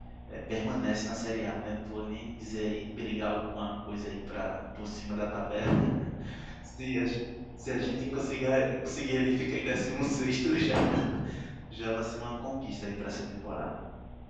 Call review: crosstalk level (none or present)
present